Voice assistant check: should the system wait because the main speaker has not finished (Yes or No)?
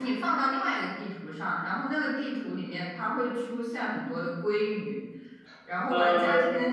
Yes